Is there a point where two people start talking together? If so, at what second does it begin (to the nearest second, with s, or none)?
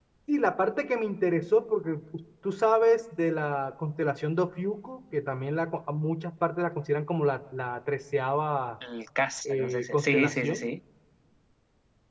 9 s